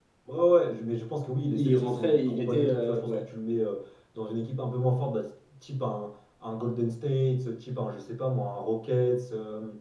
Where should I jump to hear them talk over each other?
1.5 s

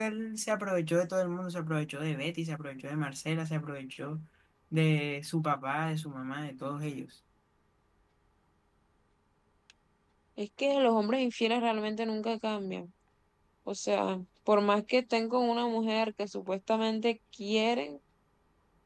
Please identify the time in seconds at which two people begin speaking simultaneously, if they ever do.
none

